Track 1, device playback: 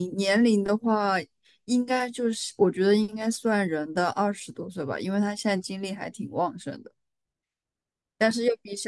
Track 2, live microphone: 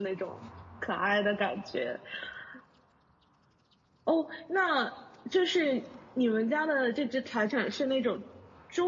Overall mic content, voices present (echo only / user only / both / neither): user only